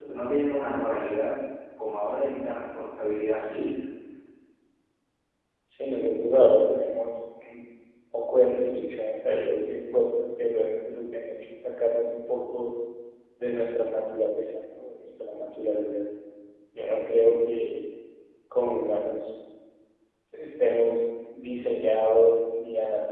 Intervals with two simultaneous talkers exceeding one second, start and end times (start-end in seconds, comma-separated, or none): none